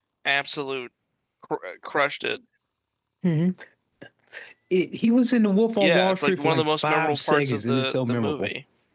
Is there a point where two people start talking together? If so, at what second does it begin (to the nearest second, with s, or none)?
6 s